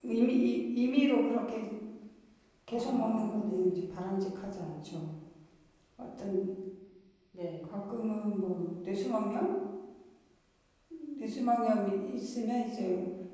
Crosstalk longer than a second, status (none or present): present